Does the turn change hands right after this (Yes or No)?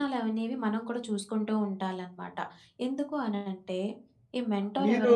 Yes